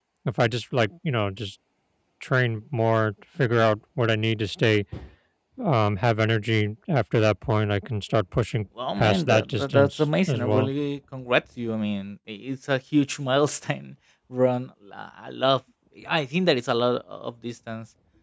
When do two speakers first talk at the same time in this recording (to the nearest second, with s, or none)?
9 s